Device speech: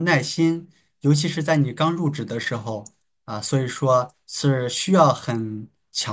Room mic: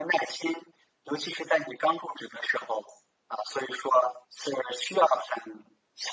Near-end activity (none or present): none